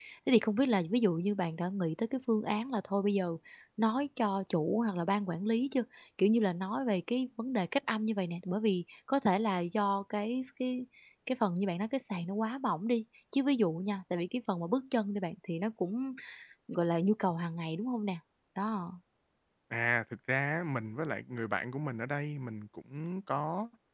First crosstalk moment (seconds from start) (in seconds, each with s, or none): none